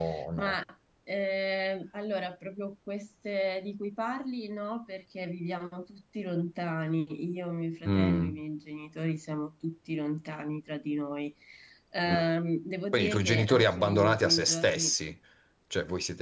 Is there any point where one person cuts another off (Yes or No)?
Yes